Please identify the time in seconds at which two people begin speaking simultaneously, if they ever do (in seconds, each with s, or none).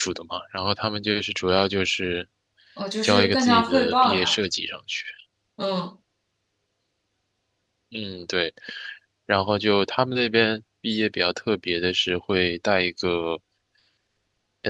3.0 s